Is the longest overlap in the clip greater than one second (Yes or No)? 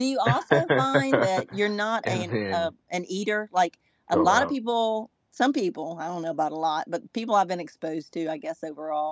Yes